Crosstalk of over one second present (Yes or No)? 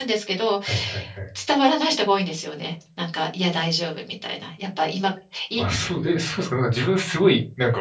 No